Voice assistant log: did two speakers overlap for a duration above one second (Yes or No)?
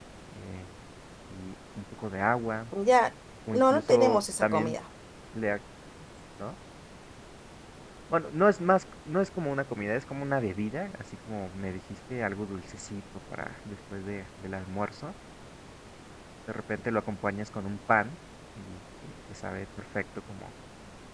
Yes